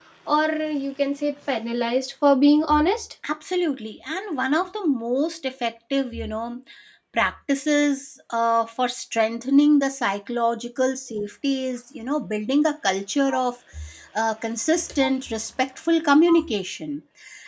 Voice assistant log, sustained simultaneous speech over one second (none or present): none